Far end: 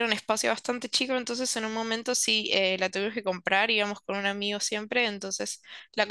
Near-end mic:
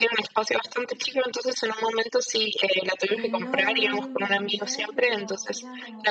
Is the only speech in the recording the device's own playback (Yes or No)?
No